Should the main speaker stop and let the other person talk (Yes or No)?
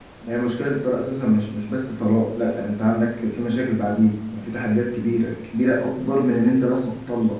No